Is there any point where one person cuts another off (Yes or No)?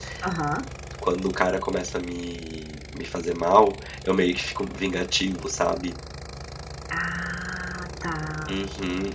No